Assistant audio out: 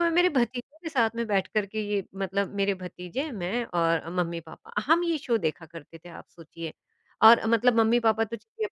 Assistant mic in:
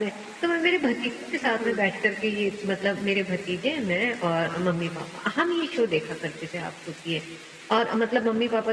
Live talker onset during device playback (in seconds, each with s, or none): 1.4 s